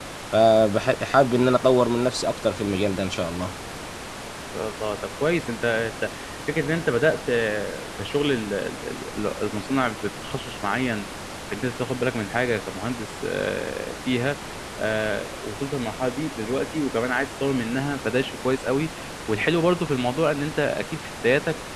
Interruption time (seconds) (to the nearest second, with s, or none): none